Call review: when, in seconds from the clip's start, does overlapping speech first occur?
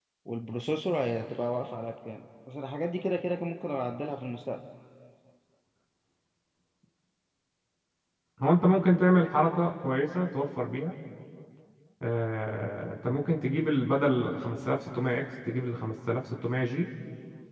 none

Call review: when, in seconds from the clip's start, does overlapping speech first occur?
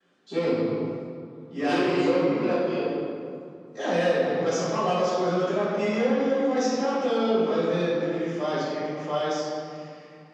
1.6 s

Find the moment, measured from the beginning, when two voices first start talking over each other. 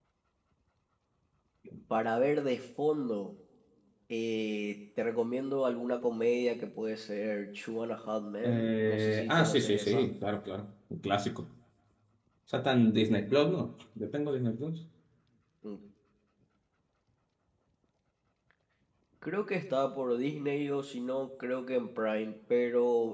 8.4 s

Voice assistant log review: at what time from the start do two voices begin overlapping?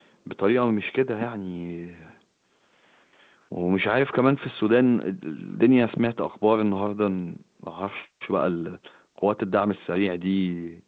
none

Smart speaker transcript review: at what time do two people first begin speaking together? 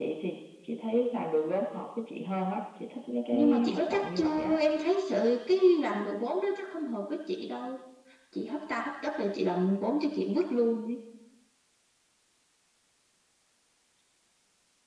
3.3 s

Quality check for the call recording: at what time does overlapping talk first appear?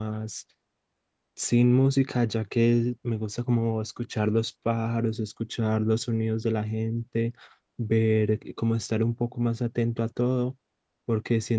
none

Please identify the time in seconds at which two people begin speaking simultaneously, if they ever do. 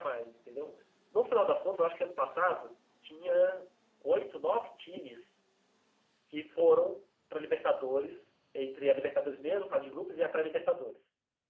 none

